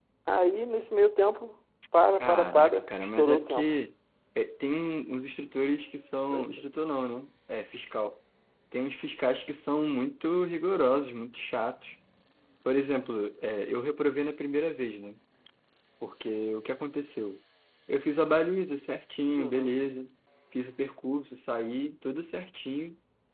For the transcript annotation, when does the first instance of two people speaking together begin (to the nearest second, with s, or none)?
2 s